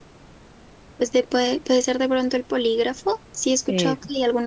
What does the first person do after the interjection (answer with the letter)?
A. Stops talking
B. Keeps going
B